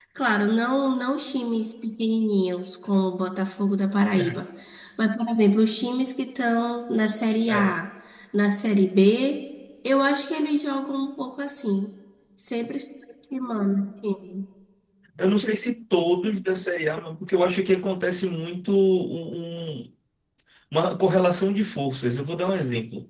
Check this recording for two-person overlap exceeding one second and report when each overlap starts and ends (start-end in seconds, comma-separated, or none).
none